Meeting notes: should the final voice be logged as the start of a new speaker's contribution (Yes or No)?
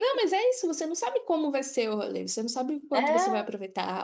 No